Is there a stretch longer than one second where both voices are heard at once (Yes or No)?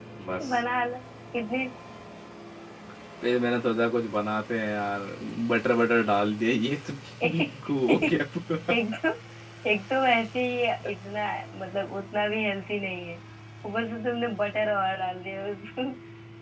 No